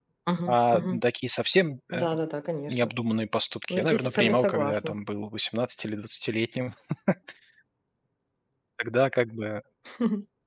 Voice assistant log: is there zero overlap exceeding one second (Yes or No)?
No